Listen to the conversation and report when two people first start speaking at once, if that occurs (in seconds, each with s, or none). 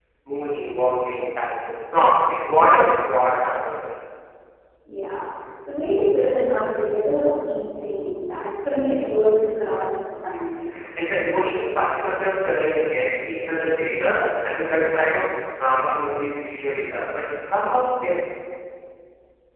none